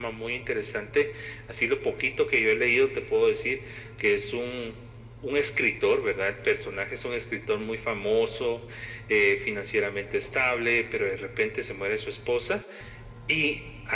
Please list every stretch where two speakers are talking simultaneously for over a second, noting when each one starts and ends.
none

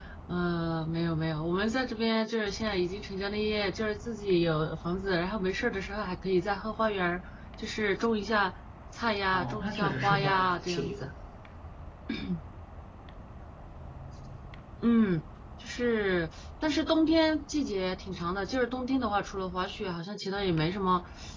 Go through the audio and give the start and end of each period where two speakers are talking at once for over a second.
9.3-11.0

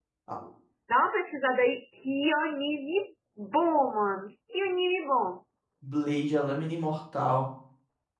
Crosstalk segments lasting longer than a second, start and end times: none

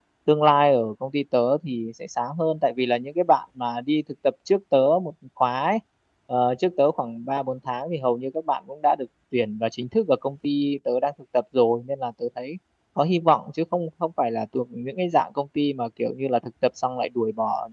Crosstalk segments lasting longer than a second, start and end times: none

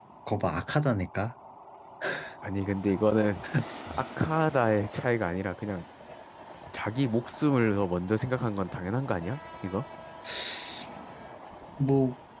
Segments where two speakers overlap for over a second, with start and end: none

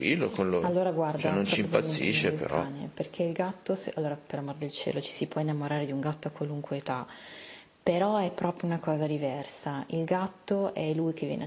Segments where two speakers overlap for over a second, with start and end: 1.2-2.7

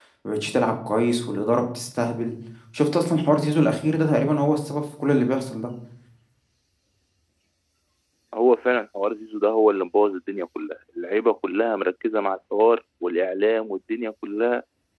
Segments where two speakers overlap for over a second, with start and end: none

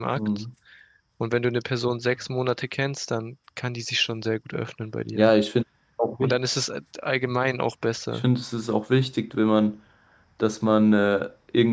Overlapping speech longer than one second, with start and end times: none

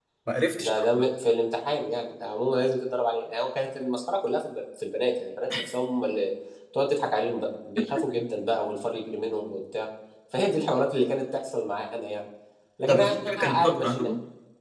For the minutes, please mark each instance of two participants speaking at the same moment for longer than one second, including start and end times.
12.9-14.1

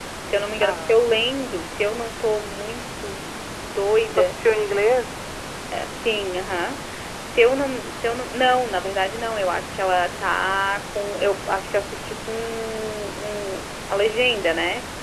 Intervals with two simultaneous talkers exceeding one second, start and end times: none

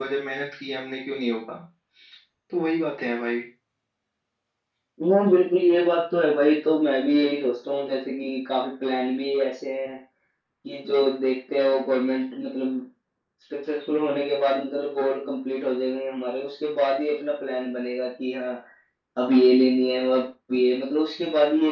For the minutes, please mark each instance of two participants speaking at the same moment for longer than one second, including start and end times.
none

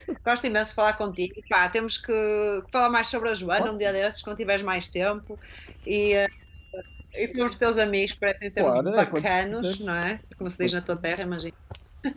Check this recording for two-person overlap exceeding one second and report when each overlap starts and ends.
8.6-9.8

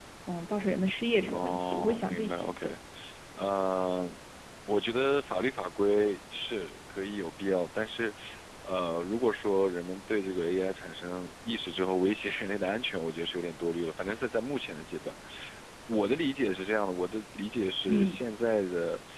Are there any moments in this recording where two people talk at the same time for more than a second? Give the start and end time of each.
1.3-2.6

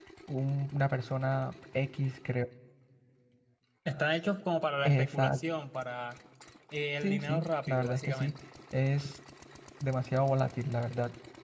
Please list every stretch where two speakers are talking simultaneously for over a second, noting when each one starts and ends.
7.0-8.3

